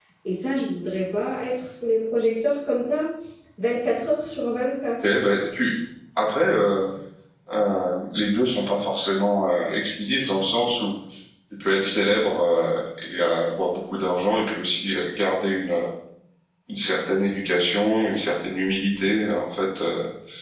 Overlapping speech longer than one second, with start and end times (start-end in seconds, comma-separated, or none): none